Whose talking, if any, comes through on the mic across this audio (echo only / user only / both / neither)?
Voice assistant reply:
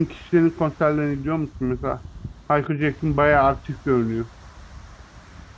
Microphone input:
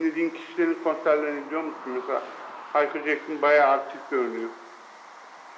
echo only